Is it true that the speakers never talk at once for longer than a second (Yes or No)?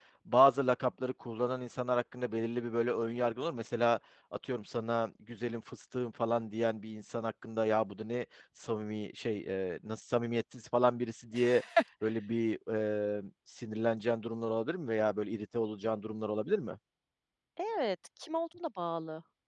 Yes